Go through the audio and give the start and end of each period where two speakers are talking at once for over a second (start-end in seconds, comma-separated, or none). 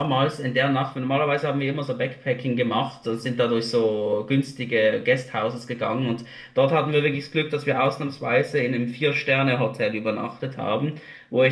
none